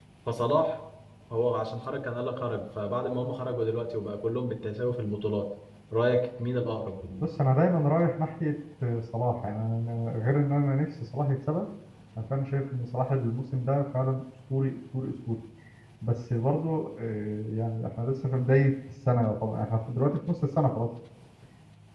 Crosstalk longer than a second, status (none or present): none